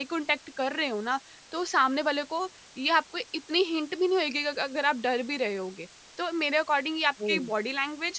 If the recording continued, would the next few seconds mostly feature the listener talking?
No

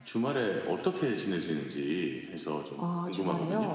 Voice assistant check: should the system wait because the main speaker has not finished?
No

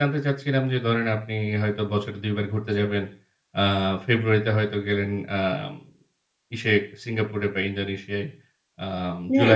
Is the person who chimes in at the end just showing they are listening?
No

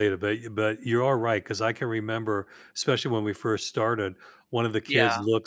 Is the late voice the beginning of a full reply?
No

